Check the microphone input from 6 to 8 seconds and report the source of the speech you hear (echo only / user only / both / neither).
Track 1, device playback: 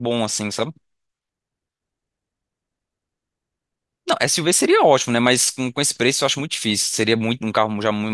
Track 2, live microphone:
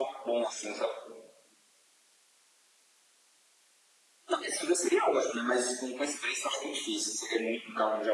echo only